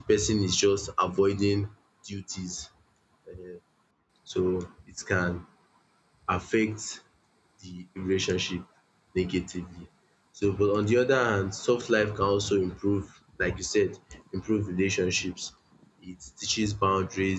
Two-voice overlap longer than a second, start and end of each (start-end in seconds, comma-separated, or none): none